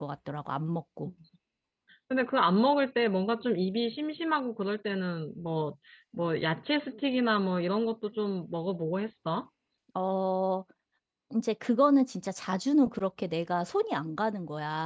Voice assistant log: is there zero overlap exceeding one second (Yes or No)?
Yes